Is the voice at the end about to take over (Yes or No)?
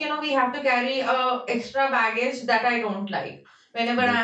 No